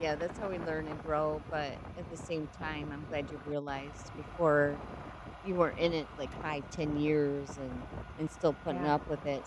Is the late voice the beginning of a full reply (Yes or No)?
No